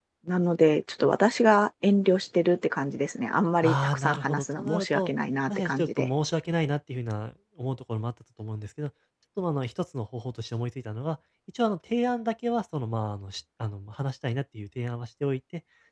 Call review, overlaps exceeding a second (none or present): present